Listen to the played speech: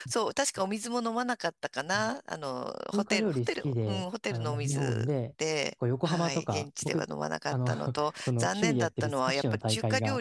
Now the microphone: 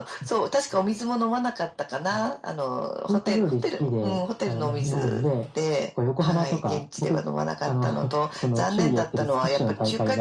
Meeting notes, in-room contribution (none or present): none